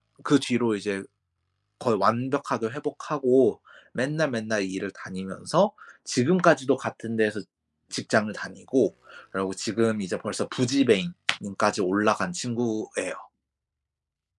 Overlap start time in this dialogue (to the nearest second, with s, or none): none